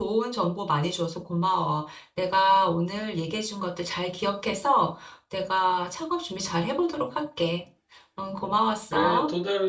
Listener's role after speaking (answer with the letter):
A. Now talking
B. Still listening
A